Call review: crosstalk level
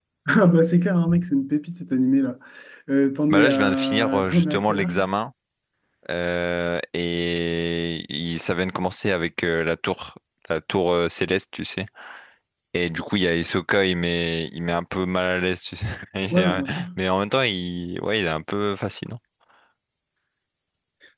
present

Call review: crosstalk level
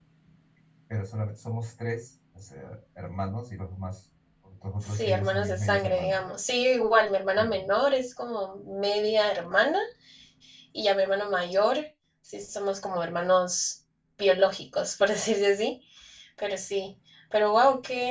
present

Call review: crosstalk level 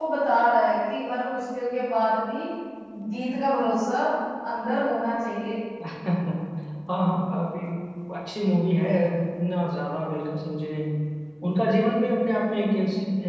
none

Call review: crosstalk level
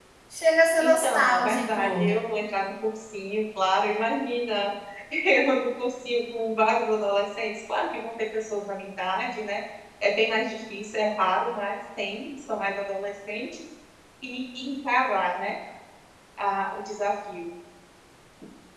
present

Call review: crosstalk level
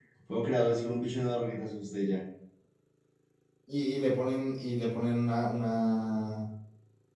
none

